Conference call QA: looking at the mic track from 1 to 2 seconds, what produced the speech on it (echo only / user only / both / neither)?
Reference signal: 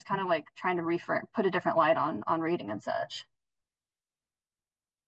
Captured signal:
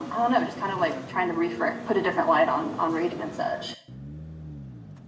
echo only